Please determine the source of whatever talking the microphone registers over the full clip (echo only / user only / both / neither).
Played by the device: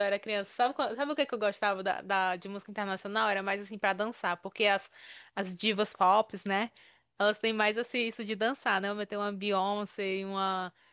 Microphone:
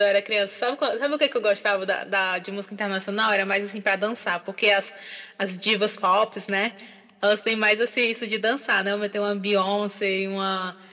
echo only